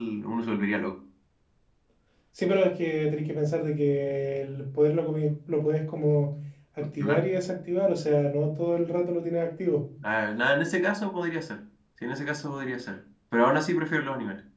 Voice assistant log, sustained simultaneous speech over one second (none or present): none